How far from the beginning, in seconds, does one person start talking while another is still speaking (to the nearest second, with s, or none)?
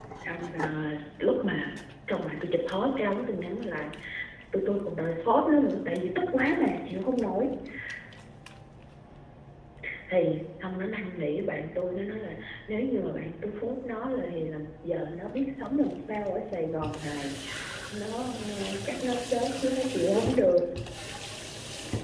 none